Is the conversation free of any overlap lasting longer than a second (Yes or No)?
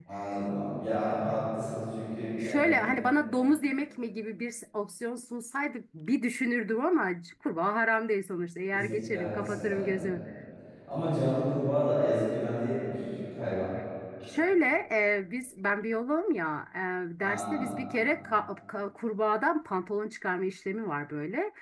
No